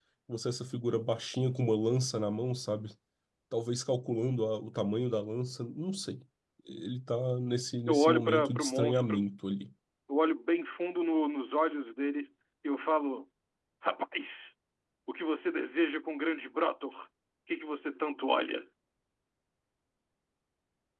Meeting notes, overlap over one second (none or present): present